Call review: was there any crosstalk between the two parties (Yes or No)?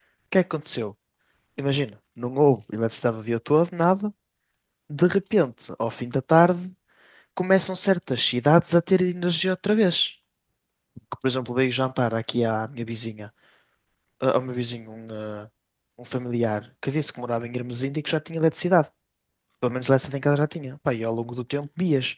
No